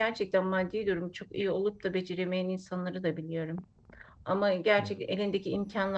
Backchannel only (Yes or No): Yes